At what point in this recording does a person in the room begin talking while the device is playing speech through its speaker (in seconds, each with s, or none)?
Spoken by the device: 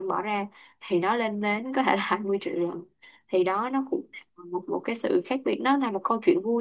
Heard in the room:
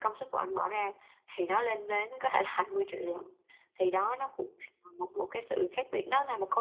none